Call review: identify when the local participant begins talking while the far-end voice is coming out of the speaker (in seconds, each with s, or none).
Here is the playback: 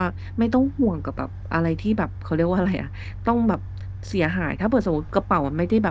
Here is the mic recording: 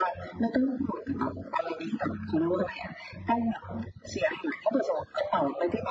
none